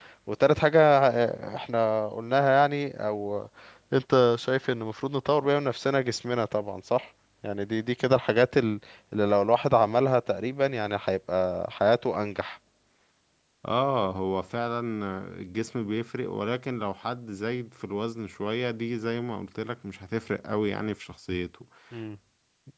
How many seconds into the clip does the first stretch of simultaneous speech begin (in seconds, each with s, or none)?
none